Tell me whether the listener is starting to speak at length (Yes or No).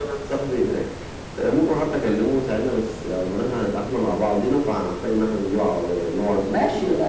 Yes